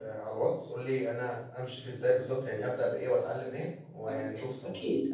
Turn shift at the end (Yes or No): Yes